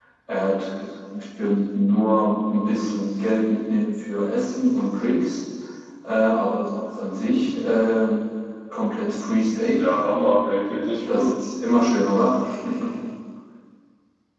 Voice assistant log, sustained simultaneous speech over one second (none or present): none